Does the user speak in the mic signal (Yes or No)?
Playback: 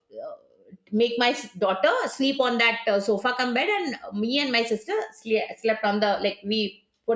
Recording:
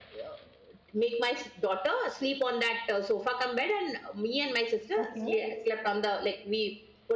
Yes